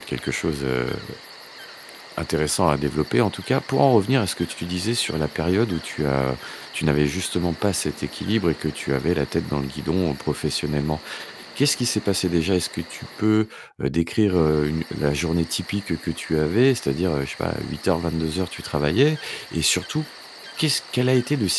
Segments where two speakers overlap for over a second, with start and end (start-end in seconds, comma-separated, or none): none